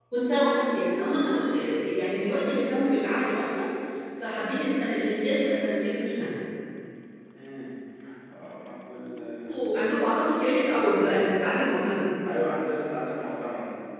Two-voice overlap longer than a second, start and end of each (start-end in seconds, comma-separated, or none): none